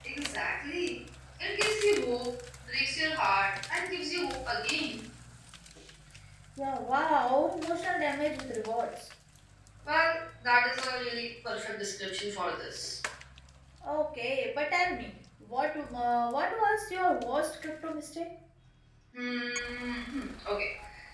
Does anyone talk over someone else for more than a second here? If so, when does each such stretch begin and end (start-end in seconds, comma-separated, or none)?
none